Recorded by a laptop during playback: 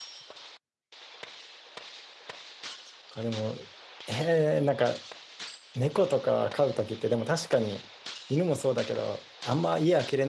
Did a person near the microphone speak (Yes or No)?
Yes